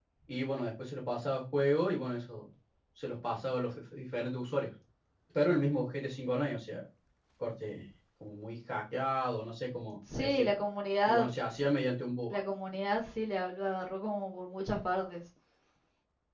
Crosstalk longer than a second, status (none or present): none